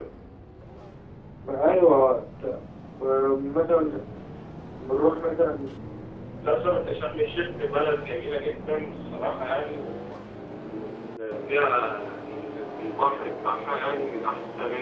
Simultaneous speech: No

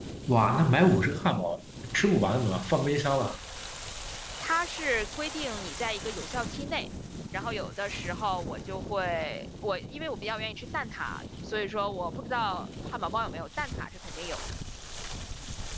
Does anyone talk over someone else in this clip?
No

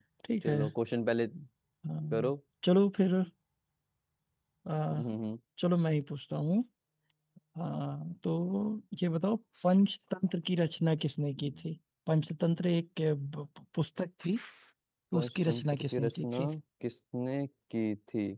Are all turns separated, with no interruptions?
No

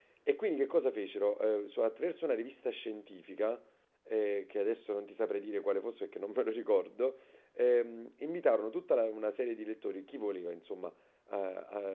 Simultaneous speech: No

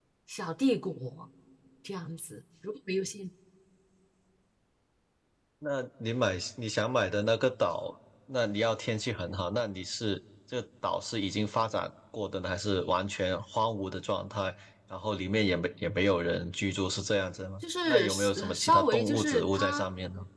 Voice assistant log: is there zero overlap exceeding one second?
No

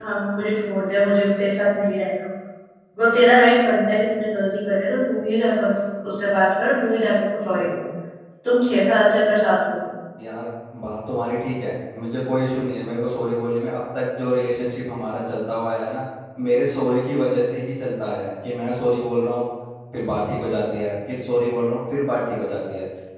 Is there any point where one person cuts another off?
No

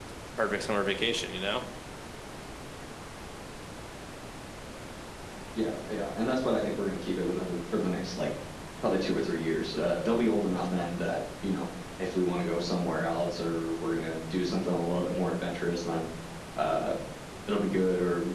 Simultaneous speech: No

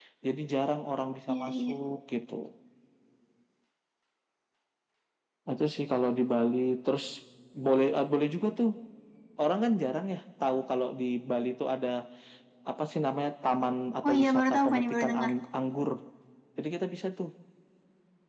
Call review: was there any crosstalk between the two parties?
Yes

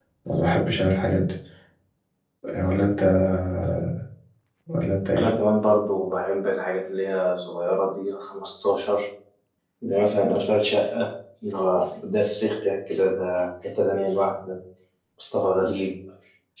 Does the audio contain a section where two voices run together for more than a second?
No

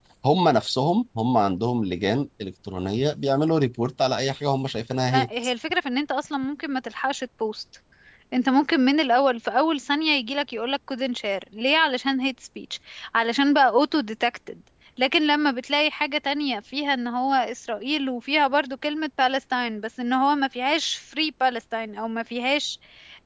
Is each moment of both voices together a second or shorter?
Yes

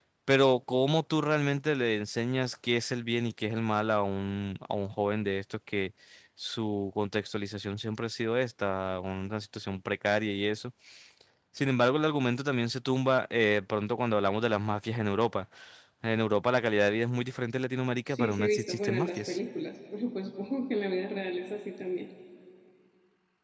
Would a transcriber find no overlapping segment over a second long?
No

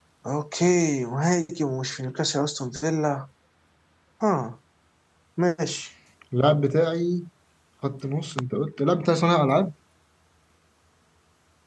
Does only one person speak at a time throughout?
Yes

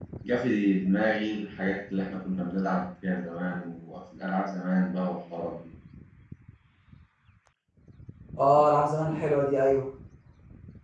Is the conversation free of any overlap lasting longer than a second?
Yes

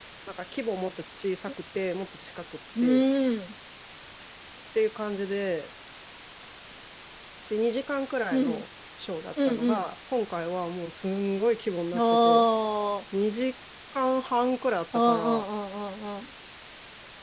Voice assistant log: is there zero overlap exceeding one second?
Yes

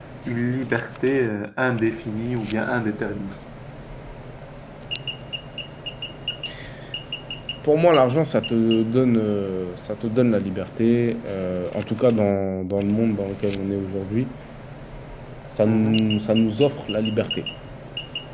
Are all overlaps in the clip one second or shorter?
Yes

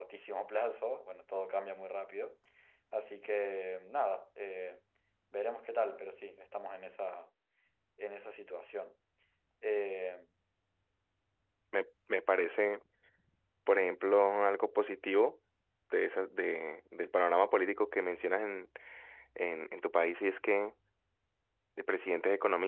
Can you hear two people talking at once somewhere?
No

